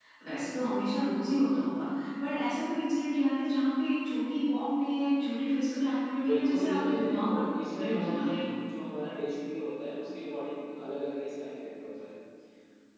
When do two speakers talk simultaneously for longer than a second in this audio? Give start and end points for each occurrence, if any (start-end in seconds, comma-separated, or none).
6.3-8.3